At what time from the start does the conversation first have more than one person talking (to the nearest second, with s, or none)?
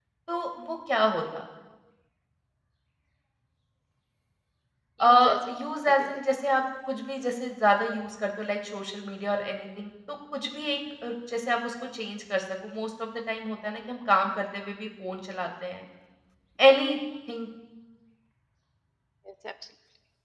5 s